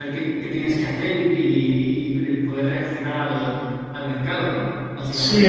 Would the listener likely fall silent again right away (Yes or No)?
No